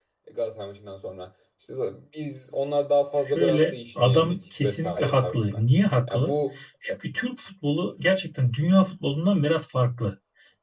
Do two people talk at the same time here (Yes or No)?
Yes